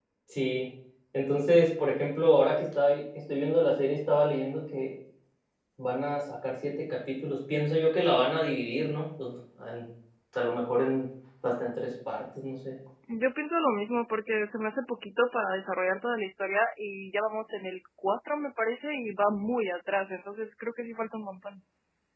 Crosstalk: none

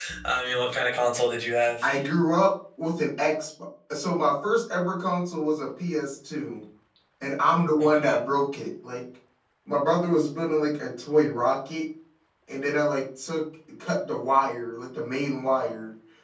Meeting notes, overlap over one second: none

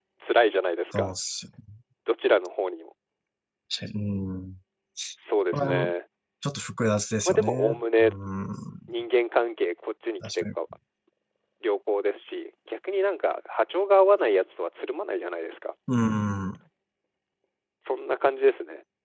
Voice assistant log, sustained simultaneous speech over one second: none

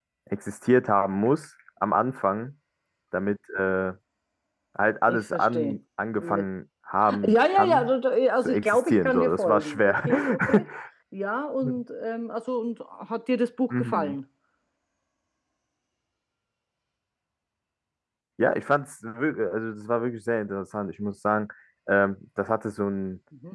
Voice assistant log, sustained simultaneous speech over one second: present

